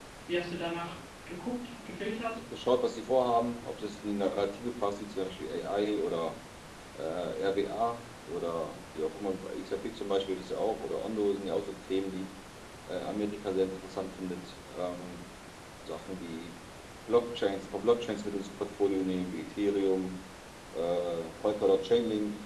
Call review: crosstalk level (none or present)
none